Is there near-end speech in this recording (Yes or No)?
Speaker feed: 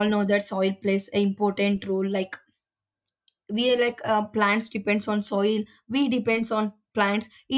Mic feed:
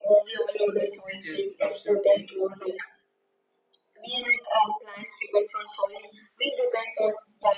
Yes